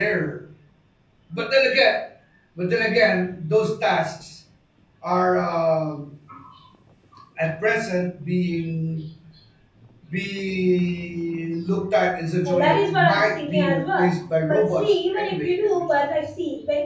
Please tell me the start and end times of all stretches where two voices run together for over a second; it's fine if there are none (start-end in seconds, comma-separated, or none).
12.4-14.1, 14.5-15.8